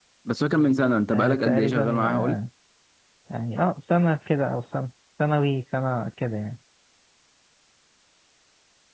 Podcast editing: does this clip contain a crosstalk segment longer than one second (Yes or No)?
Yes